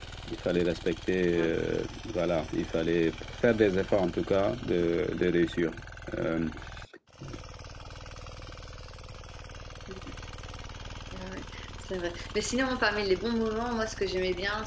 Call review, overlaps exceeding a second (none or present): none